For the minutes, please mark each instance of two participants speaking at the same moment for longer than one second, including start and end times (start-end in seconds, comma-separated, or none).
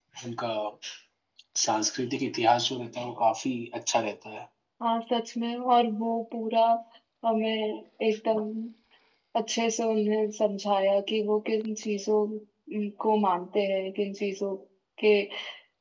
none